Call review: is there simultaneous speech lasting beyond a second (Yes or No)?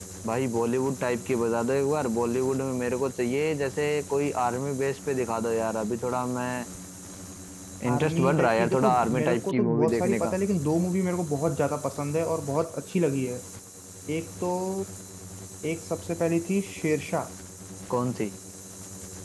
Yes